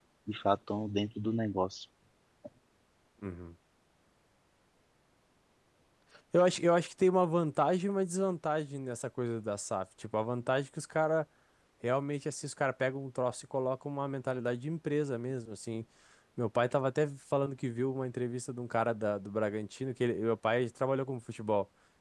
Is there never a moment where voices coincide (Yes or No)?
Yes